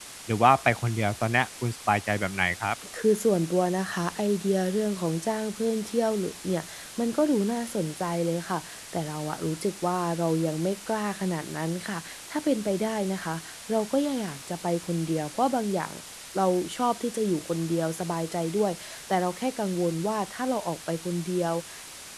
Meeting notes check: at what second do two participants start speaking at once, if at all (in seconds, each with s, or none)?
none